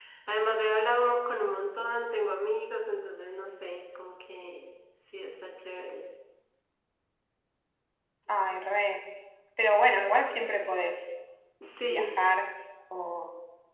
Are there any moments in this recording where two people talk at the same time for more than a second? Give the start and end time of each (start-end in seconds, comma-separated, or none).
none